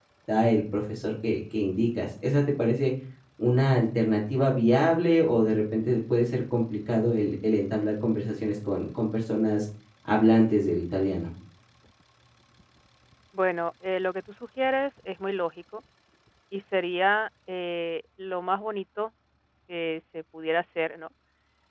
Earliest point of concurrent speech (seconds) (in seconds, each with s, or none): none